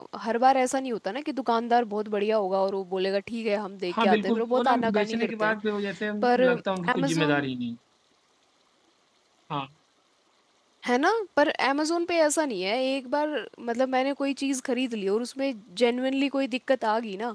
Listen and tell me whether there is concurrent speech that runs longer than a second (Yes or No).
Yes